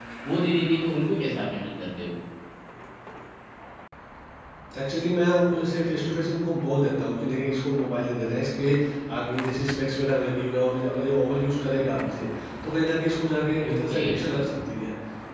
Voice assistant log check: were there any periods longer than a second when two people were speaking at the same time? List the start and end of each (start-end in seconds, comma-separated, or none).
none